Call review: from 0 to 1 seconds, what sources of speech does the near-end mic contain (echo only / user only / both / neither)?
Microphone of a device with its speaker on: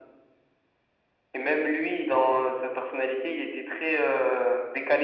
neither